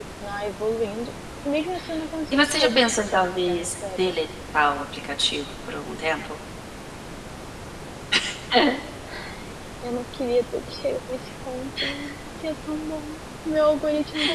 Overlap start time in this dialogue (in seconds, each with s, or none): 2.3 s